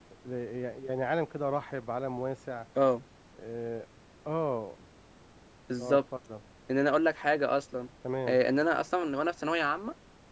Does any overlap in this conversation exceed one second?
No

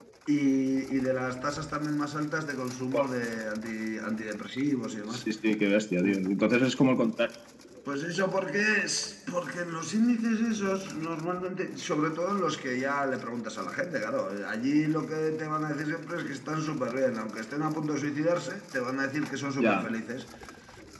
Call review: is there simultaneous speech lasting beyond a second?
No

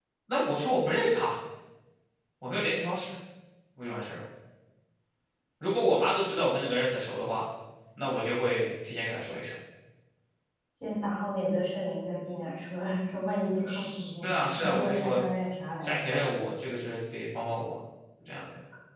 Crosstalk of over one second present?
Yes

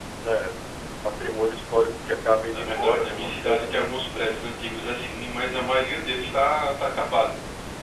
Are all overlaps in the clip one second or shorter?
No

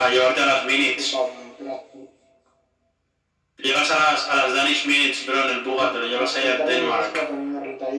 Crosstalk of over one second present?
Yes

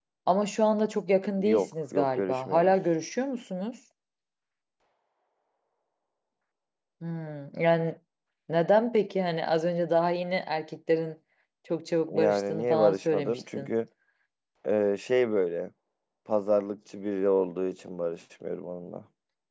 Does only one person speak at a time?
No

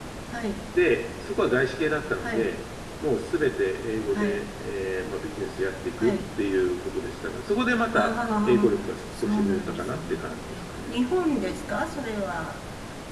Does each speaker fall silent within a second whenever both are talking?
No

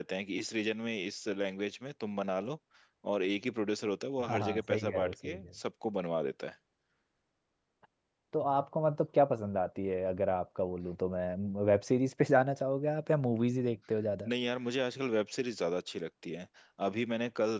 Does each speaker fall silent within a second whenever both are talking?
No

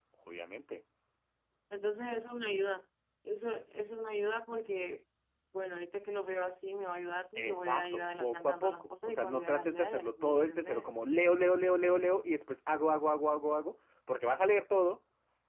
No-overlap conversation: No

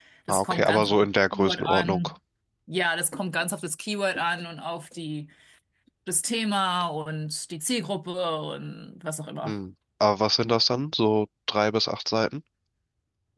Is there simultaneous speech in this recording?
Yes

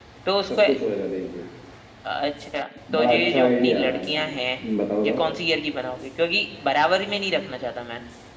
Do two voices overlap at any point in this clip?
Yes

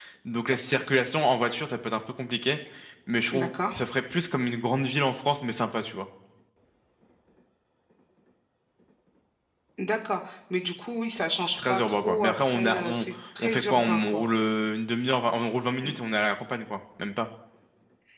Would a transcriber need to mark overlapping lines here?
Yes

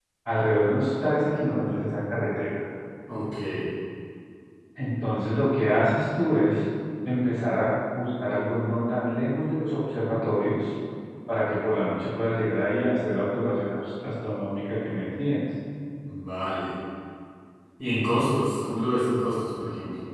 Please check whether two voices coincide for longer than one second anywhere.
No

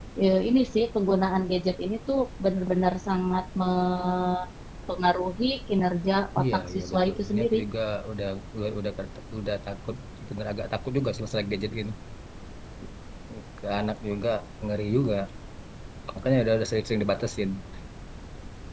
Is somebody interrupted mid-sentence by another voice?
Yes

